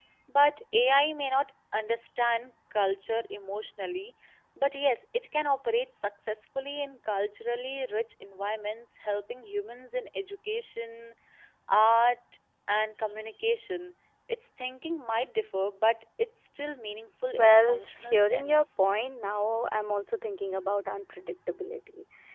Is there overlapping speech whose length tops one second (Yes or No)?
Yes